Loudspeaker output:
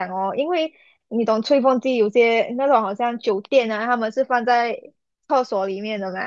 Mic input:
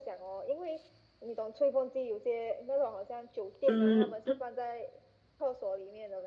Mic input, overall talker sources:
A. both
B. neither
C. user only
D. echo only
A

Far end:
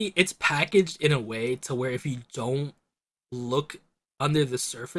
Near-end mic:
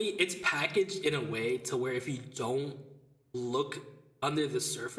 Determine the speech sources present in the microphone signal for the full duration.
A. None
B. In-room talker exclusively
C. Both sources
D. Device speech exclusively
D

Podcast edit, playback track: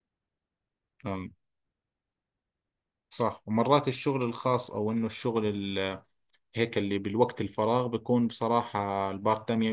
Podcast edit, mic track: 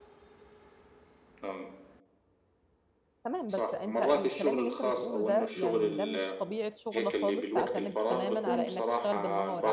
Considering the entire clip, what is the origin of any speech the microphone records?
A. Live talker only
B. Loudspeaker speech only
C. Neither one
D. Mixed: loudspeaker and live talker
D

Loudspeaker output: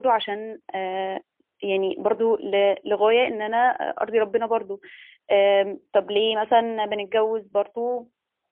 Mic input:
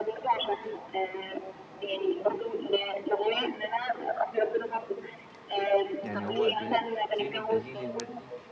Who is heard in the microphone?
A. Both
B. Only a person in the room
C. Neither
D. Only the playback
A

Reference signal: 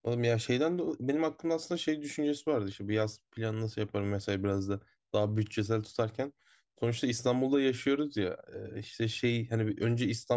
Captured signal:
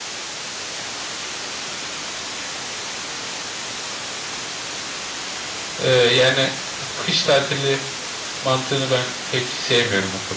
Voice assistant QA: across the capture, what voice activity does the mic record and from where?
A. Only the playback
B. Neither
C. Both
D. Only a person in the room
D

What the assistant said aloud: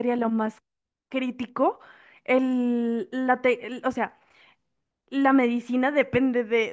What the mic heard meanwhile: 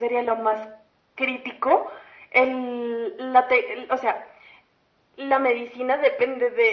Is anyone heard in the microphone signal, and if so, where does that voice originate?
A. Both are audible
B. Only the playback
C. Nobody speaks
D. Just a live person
B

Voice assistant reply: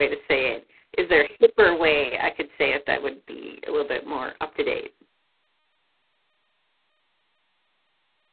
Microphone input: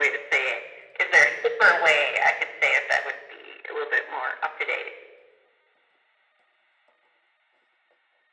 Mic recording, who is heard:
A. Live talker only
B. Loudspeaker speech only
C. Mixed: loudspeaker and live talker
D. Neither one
B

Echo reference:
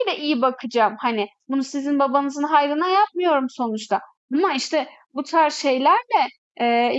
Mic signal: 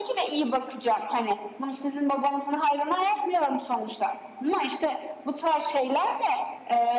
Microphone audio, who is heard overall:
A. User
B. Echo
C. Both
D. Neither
B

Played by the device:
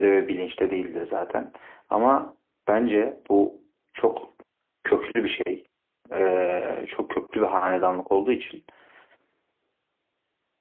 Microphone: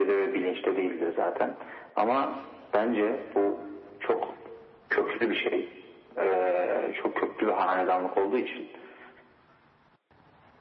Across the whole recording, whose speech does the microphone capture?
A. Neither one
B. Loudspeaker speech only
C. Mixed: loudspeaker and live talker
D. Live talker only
B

